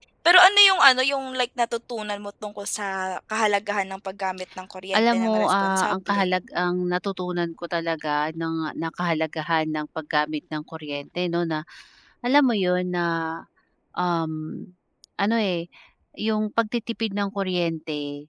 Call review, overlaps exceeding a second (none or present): present